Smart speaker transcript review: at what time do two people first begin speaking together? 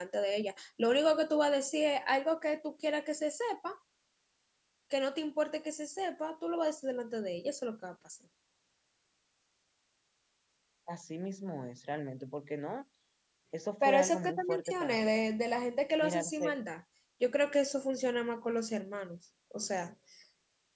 13.8 s

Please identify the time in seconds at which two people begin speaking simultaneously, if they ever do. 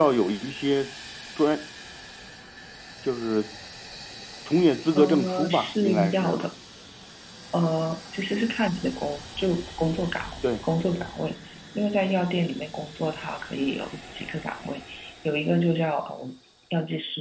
4.9 s

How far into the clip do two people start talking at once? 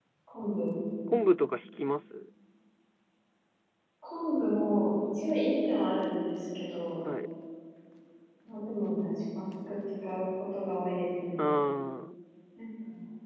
none

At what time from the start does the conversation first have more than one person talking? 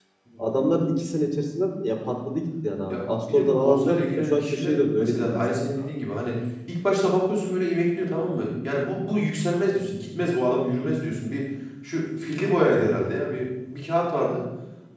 2.9 s

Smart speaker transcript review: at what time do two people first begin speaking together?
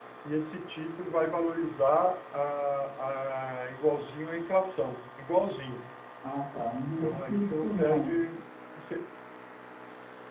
6.8 s

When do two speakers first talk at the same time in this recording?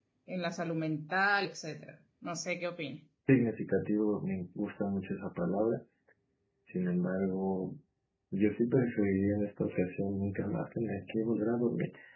none

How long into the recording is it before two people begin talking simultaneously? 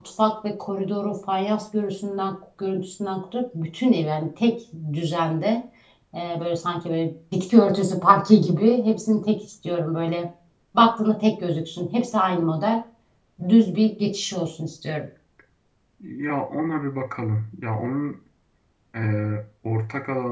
none

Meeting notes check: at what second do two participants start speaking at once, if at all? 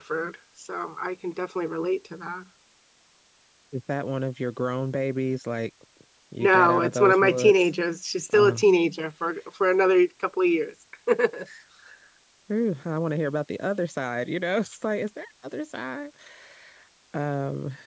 6.4 s

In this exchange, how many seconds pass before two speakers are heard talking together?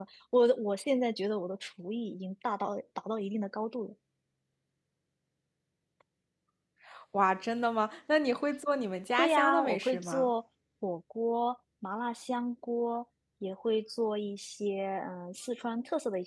9.1 s

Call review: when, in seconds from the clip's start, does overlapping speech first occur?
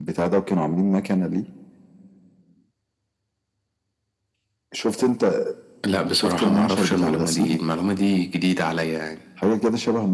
6.1 s

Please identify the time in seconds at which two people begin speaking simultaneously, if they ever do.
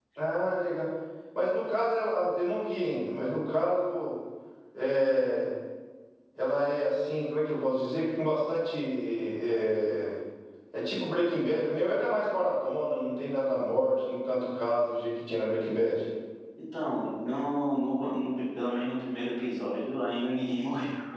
none

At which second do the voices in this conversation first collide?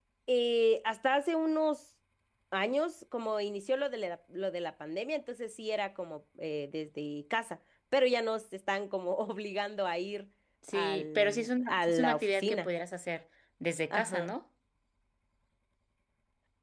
10.7 s

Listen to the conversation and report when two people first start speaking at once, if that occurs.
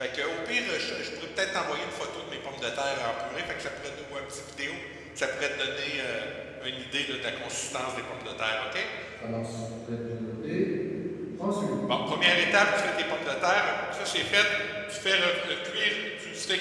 none

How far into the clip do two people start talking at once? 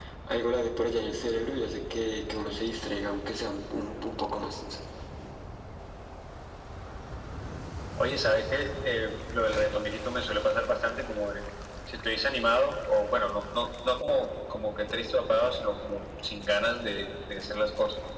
none

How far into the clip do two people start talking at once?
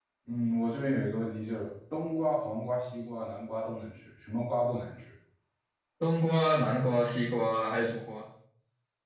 none

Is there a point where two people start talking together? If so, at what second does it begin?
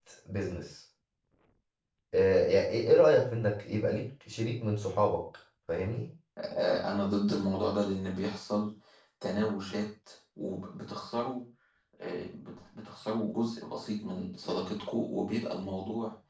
none

